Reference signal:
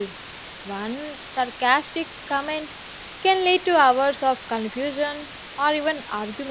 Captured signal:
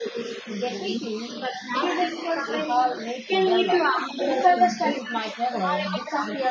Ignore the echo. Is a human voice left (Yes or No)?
Yes